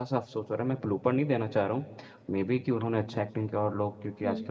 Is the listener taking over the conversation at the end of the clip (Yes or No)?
No